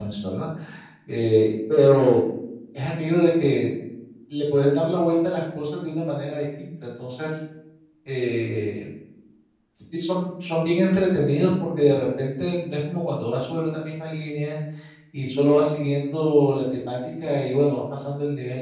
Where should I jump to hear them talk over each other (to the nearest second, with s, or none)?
none